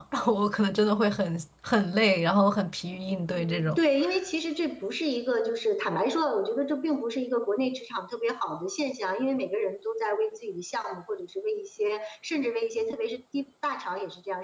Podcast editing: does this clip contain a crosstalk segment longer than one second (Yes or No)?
No